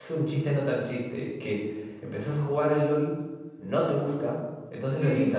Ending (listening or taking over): listening